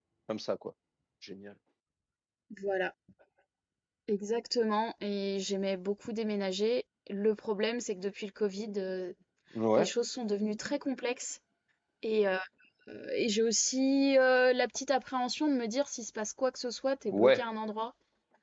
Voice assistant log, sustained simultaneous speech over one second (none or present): none